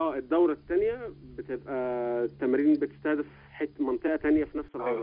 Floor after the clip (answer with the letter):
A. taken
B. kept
A